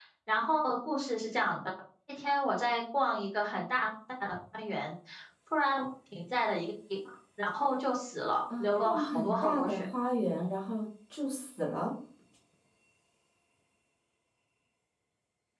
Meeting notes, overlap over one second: present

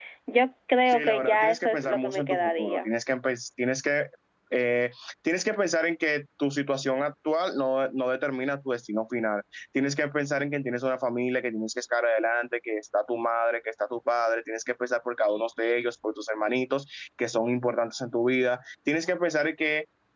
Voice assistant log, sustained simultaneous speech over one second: present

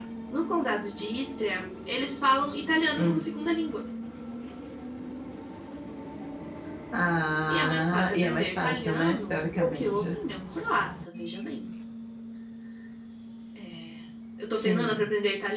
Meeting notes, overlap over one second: present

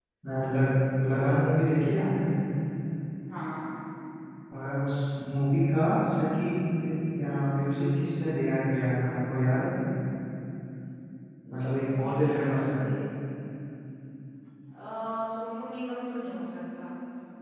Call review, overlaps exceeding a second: present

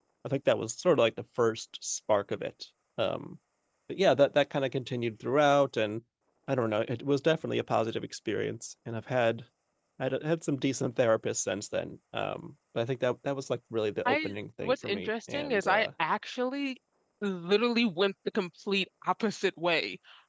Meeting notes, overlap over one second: present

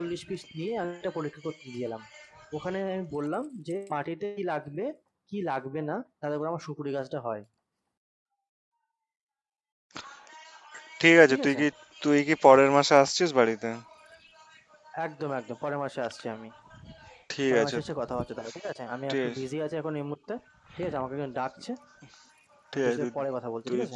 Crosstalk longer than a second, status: none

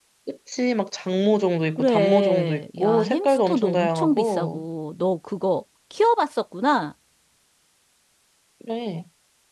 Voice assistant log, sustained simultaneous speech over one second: present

